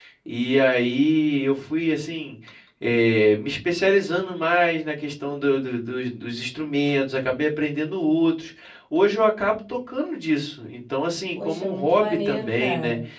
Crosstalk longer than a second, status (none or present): present